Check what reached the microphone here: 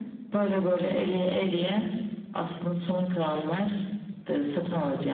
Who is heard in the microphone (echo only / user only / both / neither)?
echo only